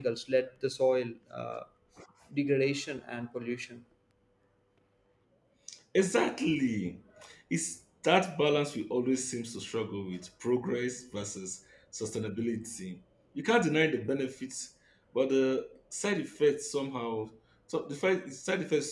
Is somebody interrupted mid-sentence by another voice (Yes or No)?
No